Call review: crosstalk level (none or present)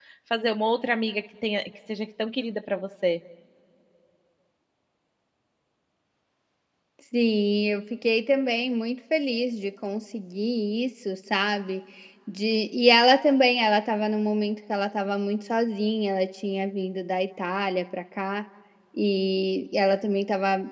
none